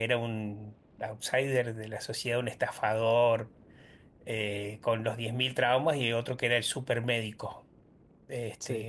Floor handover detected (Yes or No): No